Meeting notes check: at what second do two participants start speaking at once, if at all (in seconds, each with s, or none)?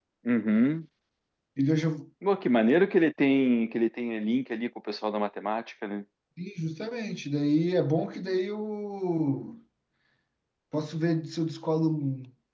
none